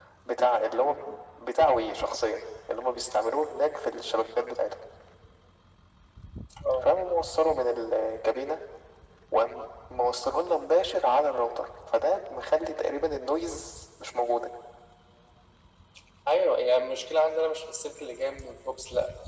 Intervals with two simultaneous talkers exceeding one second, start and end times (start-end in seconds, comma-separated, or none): none